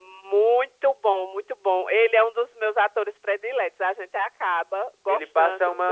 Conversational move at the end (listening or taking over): taking over